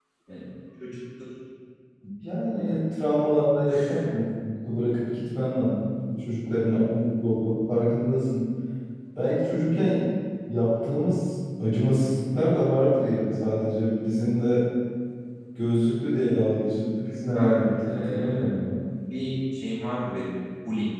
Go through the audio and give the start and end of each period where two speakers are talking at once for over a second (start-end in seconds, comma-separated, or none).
17.0-18.5